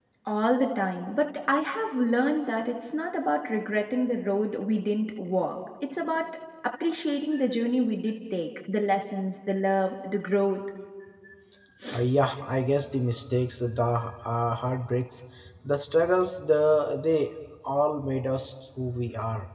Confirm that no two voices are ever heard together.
Yes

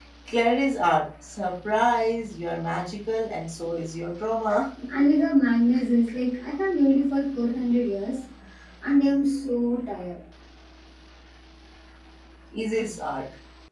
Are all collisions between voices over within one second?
Yes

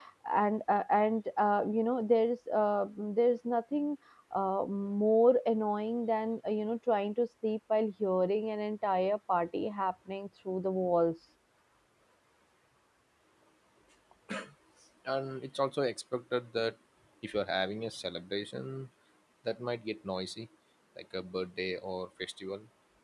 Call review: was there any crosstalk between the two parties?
No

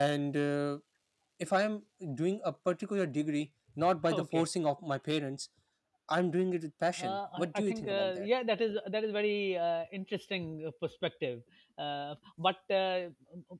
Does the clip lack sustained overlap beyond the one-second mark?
No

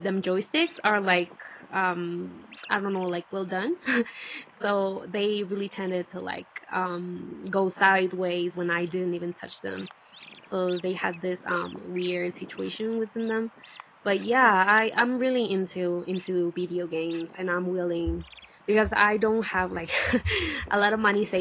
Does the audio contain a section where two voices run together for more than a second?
No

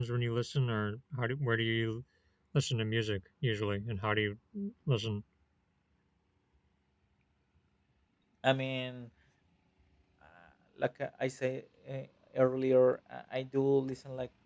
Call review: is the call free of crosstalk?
Yes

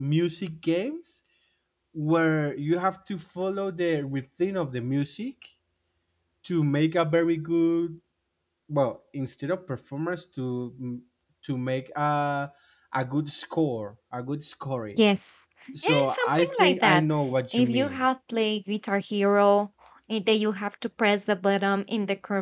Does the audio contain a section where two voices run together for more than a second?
Yes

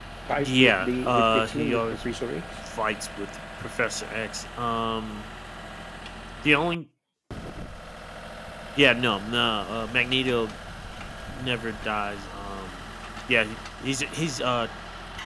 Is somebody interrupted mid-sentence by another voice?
Yes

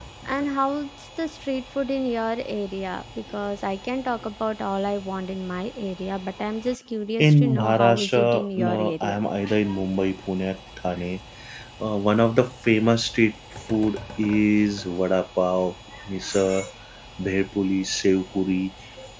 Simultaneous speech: Yes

